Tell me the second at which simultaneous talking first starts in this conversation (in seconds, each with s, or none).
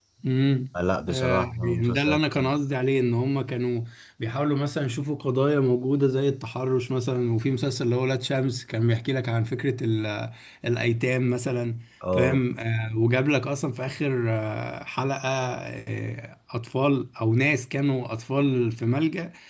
1.0 s